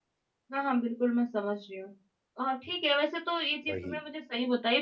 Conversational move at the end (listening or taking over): listening